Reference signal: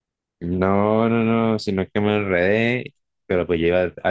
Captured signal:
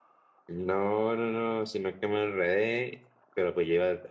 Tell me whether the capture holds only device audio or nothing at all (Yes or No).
Yes